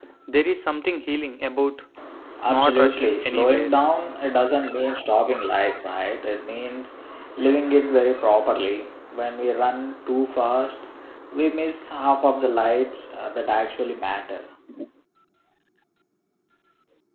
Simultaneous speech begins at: 2.5 s

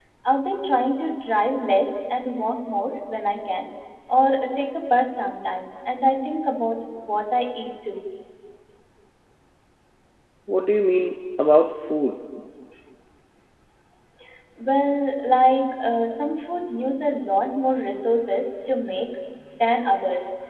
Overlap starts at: none

